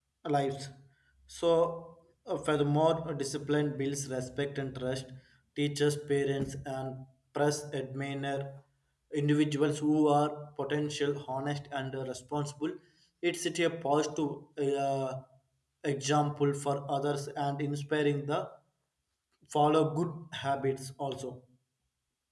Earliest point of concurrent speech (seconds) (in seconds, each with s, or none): none